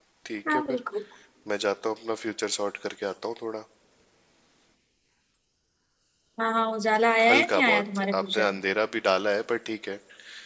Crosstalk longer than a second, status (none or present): present